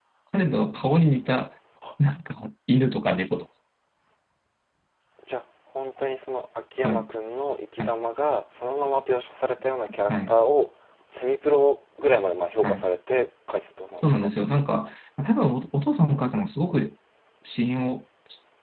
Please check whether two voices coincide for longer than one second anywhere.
No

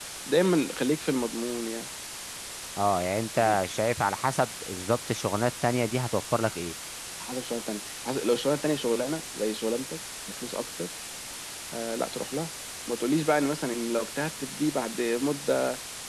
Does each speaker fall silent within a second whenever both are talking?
Yes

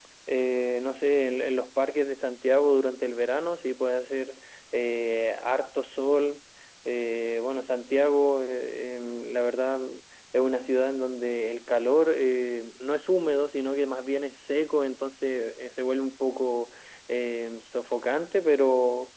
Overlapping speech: No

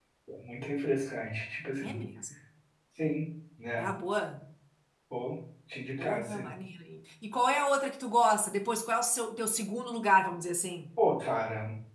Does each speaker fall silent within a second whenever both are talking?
Yes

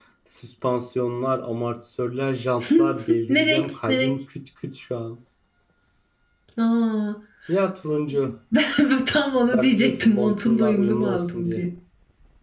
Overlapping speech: Yes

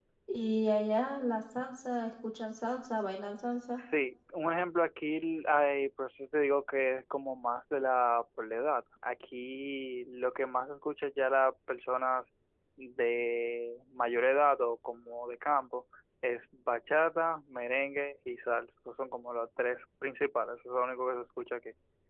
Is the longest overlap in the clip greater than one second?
No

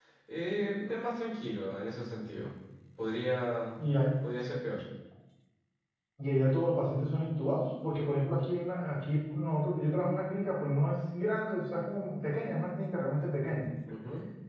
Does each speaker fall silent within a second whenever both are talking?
Yes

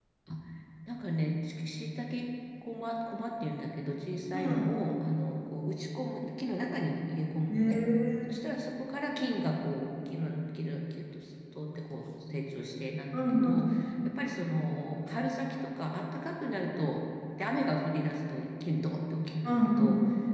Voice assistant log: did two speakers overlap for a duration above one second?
No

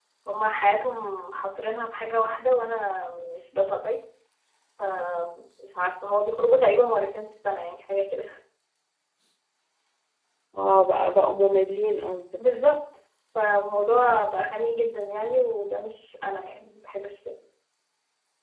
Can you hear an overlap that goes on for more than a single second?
No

